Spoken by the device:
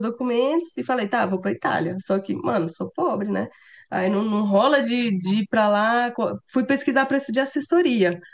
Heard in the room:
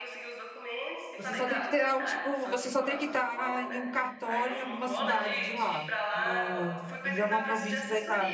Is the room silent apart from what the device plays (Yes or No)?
No